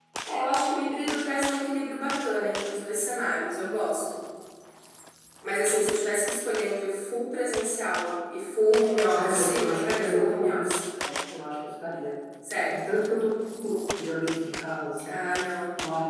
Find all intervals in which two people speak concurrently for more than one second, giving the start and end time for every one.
9.1-10.7

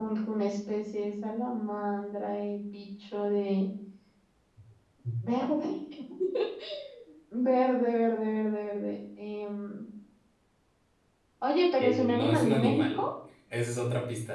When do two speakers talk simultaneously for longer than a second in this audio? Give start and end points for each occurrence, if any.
11.8-13.0

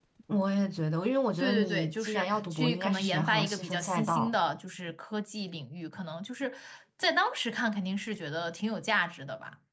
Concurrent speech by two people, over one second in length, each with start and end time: 1.4-4.3

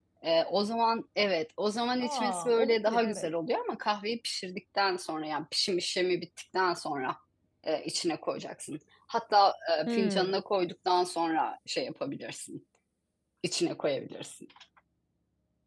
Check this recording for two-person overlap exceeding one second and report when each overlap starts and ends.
2.0-3.3

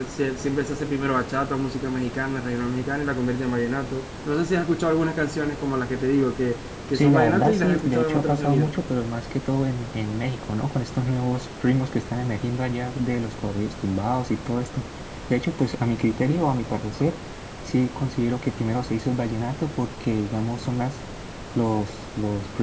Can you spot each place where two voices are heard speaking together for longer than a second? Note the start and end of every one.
6.9-8.7

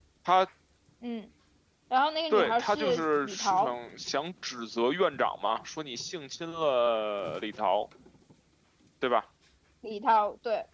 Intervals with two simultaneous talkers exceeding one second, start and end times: 2.3-3.7

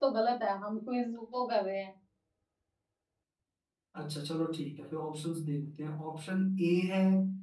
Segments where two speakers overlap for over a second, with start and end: none

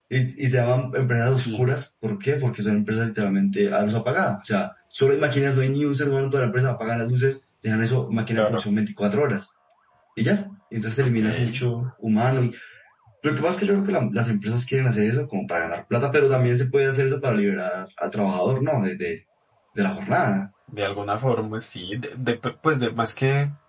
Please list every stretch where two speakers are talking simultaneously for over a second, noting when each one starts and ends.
none

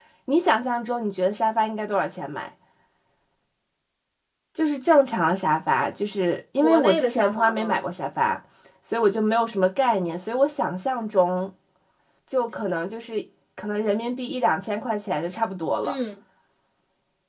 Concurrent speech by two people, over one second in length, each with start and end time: 6.6-7.8

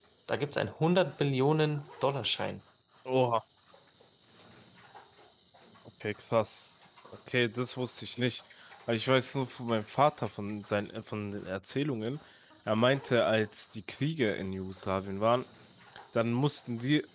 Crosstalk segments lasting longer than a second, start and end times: none

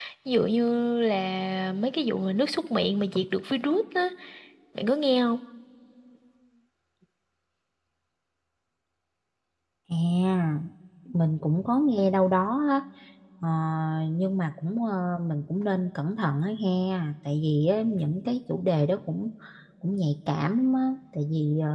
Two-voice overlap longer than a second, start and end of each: none

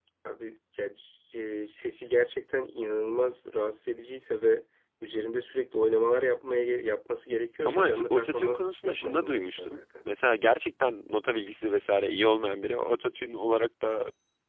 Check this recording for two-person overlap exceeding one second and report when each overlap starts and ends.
7.7-9.8

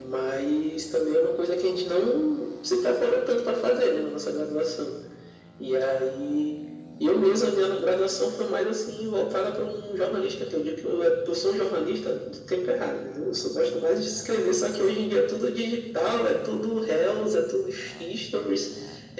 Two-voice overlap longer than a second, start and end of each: none

